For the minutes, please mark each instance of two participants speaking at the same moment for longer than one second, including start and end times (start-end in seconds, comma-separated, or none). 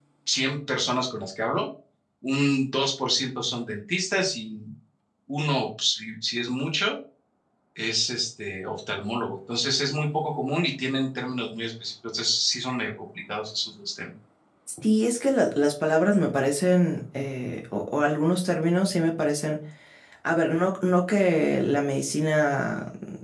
none